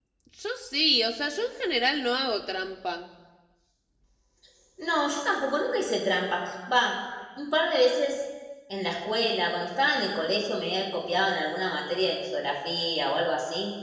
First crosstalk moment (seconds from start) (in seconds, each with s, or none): none